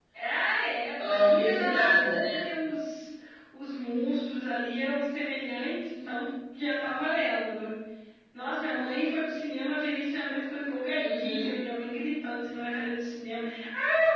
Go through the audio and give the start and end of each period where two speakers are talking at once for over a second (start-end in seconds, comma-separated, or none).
1.0-2.4